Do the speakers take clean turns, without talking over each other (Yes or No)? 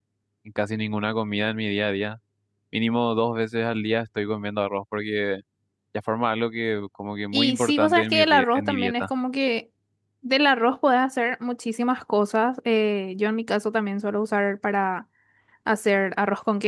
No